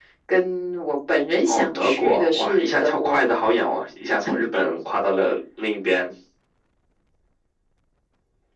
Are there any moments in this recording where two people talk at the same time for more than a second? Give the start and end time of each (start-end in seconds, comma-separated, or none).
1.5-3.2